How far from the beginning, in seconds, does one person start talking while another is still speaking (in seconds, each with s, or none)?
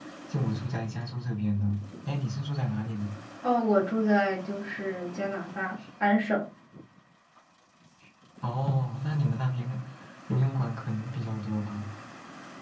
none